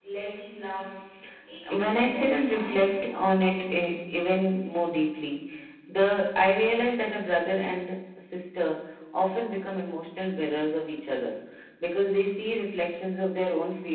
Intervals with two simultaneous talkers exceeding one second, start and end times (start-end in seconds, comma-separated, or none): 1.8-3.2